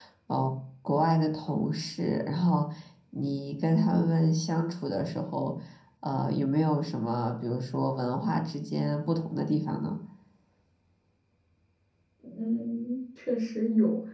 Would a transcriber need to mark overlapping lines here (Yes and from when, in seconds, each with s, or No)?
No